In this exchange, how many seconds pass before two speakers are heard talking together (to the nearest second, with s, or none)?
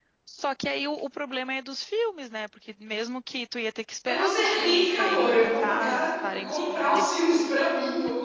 4 s